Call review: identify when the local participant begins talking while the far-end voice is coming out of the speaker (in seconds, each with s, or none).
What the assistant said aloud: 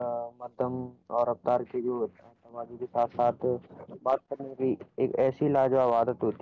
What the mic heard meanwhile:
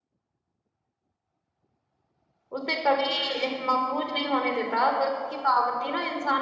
2.5 s